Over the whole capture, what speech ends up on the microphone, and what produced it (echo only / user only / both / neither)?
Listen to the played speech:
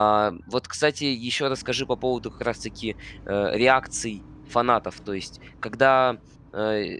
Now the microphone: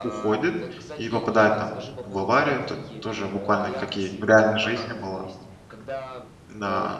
both